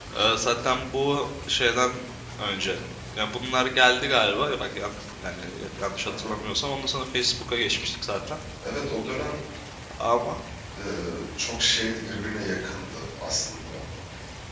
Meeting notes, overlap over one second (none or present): none